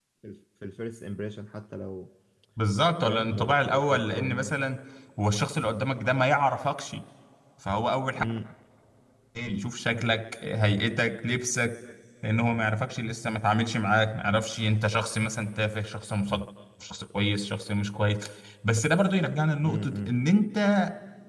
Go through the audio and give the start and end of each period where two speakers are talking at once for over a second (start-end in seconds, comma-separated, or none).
3.0-4.5